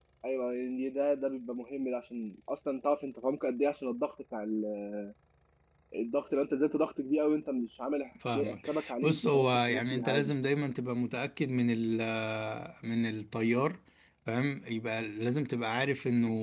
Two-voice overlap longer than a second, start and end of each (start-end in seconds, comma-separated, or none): 8.5-10.3